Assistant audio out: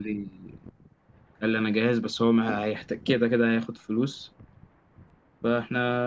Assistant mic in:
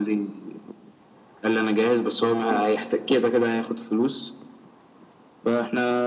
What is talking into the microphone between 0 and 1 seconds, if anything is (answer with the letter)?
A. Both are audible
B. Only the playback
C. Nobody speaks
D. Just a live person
B